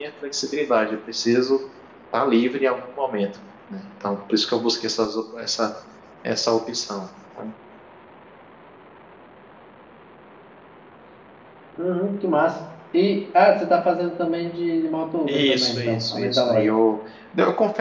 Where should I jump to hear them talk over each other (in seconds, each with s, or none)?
15.3 s